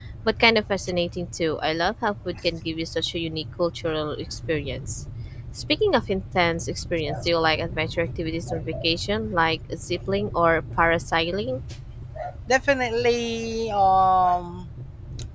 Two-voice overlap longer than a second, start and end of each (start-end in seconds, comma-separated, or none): none